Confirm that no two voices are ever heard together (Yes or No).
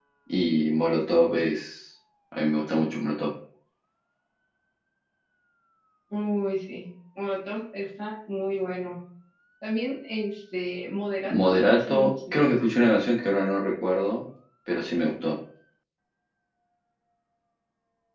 No